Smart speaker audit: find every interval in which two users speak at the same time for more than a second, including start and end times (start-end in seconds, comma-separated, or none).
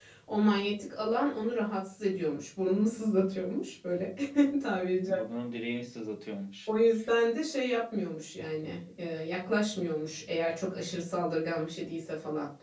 none